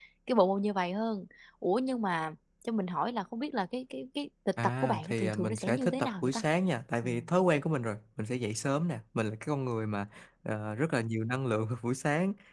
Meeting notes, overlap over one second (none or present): present